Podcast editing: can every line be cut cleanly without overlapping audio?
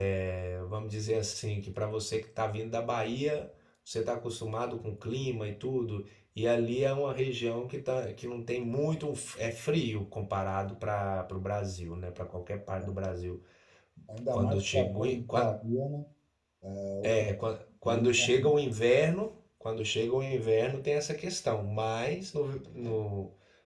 No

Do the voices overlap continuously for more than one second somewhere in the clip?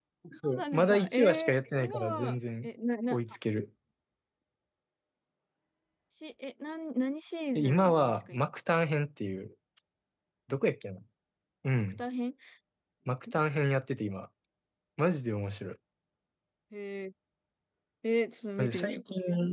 Yes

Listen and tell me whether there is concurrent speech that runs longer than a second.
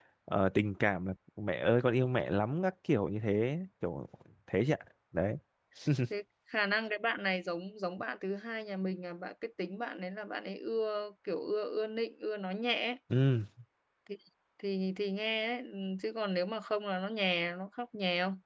No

